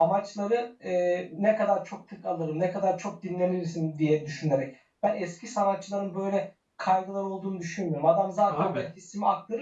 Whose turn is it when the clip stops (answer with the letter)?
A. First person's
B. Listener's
A